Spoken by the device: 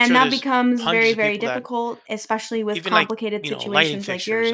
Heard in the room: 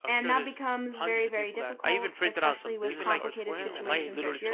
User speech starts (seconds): 1.8 s

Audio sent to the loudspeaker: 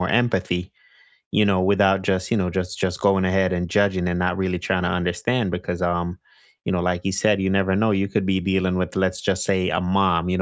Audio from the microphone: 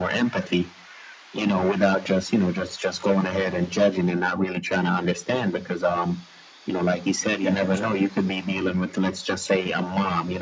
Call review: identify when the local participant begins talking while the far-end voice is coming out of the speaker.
7.4 s

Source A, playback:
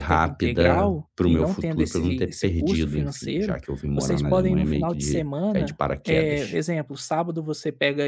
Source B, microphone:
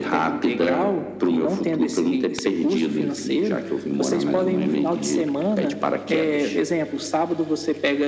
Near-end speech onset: none

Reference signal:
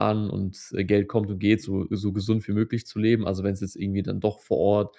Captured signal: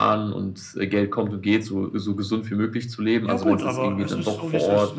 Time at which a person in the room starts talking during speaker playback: 3.2 s

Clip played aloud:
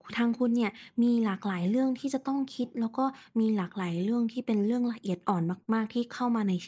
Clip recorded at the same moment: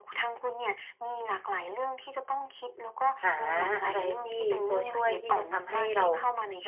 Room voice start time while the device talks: 3.2 s

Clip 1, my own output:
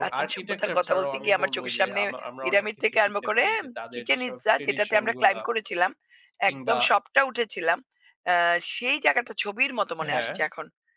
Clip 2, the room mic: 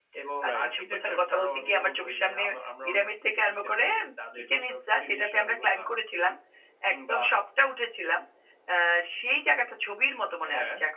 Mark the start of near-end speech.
0.5 s

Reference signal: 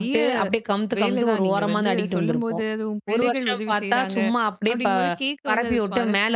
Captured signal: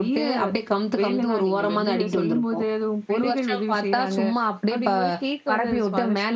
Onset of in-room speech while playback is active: none

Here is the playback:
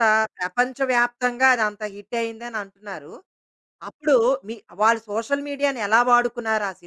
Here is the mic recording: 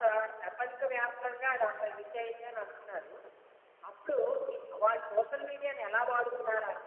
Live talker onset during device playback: none

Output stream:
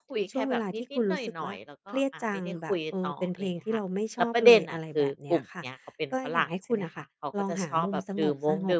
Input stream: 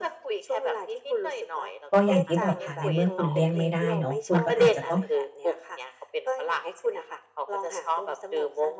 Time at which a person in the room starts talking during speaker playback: 1.9 s

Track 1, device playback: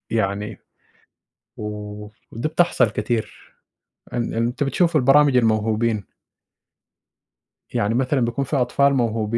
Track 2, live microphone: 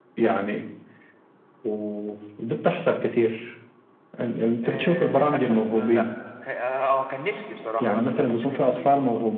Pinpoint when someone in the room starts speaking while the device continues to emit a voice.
4.6 s

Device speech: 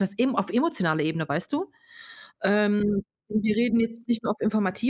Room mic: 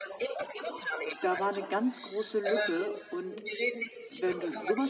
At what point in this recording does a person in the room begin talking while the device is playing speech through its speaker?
1.2 s

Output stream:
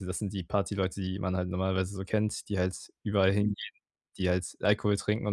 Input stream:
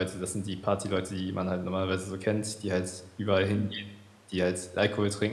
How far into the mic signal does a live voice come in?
none

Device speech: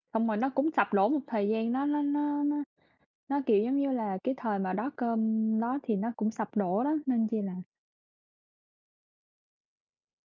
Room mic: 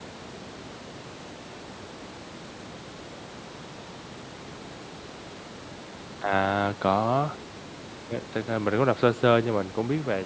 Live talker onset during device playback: 6.2 s

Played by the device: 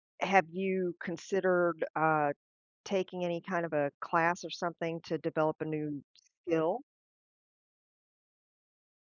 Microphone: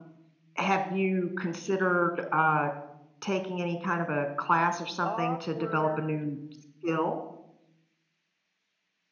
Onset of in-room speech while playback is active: 5.0 s

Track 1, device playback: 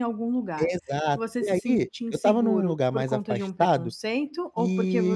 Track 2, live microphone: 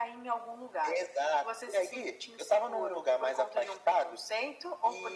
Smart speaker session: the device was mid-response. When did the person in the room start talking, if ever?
none

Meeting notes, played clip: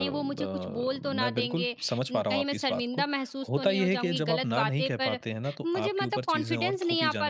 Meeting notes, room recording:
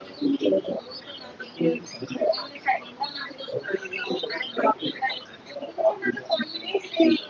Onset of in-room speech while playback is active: none

